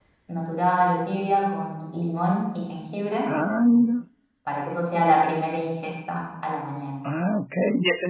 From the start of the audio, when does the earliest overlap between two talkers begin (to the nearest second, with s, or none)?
none